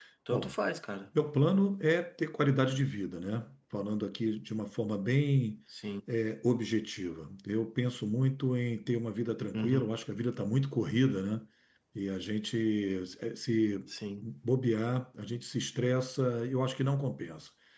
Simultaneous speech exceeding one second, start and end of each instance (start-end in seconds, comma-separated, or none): none